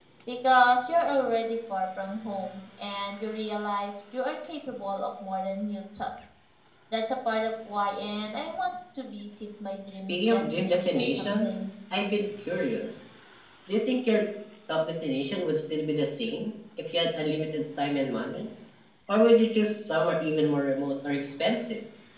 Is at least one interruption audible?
Yes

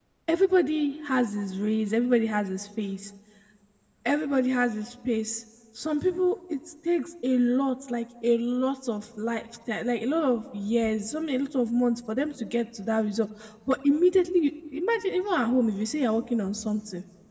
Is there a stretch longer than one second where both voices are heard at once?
No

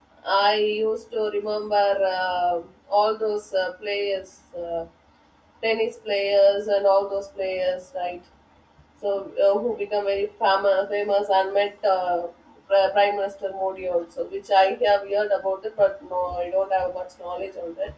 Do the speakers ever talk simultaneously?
No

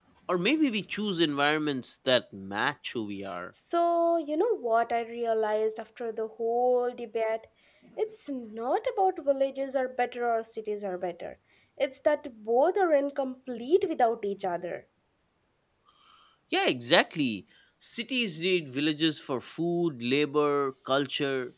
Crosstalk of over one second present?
No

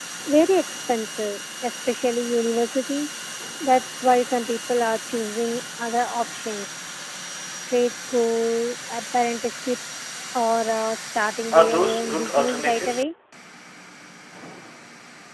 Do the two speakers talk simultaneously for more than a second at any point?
Yes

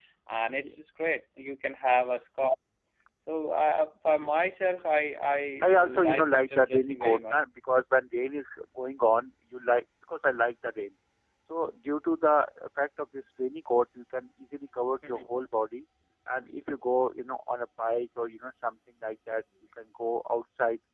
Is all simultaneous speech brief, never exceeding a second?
No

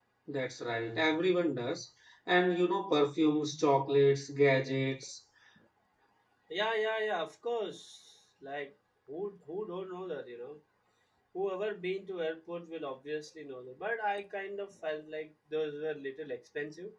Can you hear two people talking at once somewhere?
No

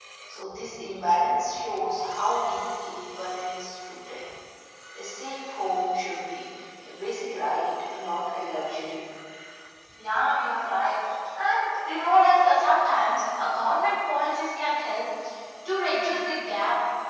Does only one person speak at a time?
Yes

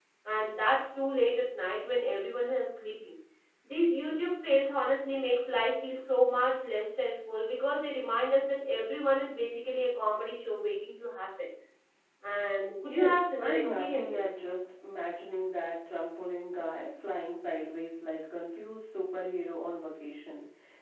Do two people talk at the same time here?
Yes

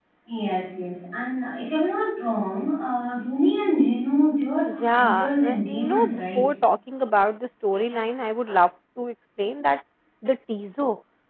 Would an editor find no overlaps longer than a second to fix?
No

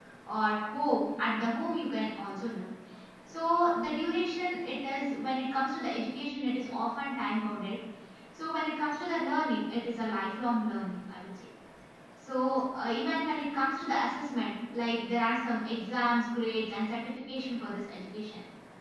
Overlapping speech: No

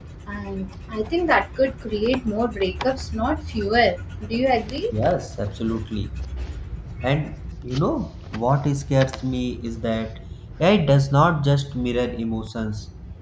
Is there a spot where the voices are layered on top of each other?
No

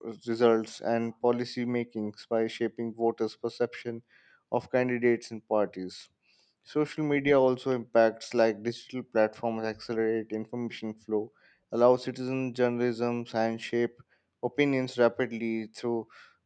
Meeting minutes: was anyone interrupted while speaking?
No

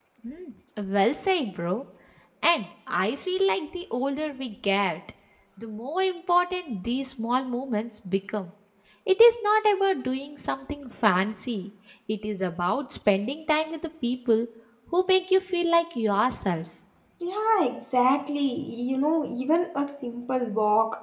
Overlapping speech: No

